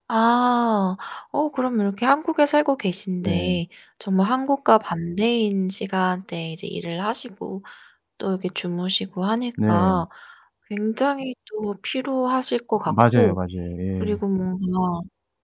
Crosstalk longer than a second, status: none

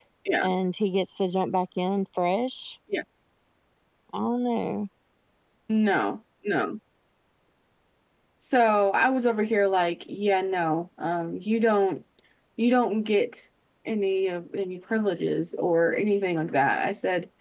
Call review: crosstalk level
none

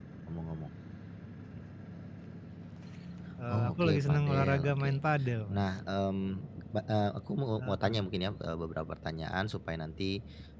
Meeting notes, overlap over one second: present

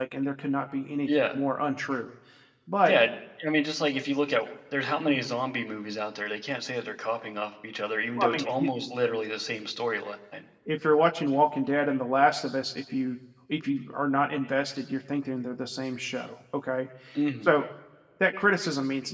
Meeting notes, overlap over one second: none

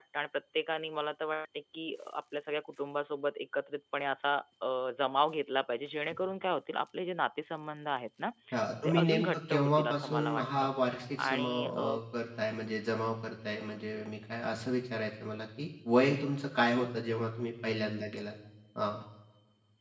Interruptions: present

